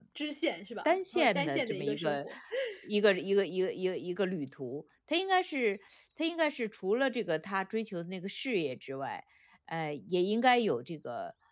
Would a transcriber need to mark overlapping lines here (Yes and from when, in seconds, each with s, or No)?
Yes, from 0.8 s